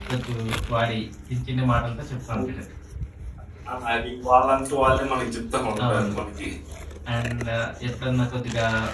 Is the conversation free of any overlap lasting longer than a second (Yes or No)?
Yes